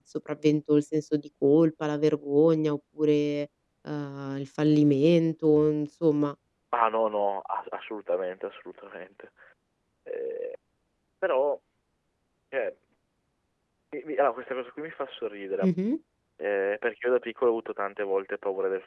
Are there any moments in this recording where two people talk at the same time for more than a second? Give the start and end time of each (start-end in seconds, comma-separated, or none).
none